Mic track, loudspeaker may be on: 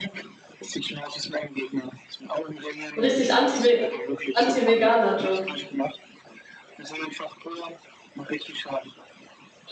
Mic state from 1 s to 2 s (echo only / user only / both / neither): echo only